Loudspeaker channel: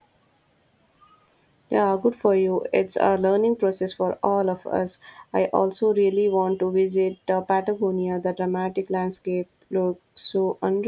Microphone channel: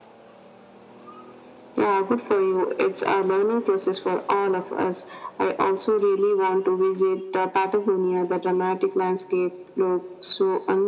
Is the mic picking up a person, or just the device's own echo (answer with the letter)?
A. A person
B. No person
B